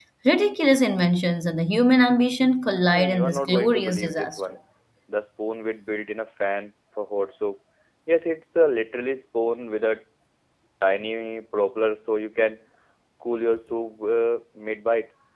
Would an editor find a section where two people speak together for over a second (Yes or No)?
Yes